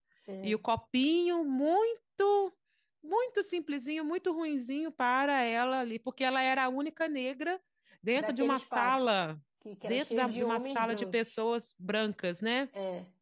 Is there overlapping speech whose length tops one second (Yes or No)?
Yes